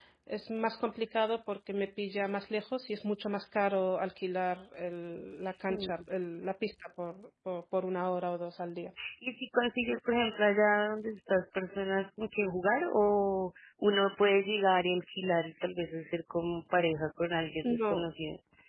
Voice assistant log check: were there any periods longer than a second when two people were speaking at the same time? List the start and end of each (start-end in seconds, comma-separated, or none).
none